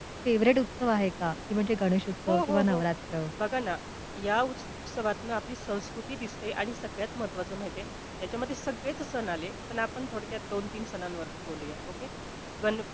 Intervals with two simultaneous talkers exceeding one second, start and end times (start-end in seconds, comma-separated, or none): none